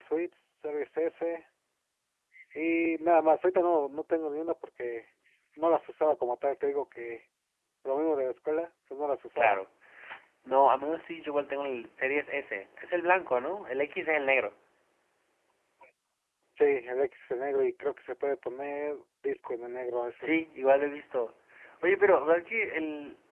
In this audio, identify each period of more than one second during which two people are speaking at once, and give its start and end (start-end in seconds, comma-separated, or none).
none